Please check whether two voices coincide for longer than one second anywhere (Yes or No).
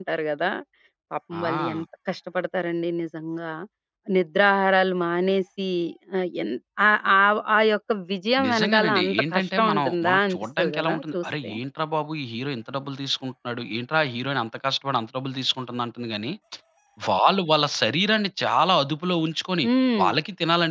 Yes